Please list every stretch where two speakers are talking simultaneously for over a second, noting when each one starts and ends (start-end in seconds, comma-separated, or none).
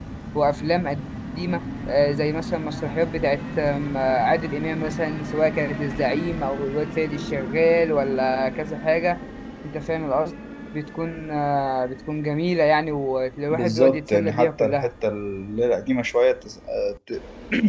13.5-14.9